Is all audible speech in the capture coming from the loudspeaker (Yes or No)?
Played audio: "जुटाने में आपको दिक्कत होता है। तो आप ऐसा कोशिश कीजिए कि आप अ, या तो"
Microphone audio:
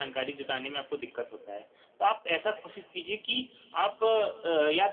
Yes